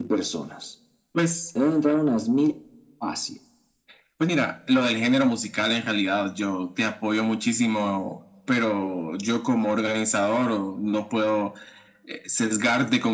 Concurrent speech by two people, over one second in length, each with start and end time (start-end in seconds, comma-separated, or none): none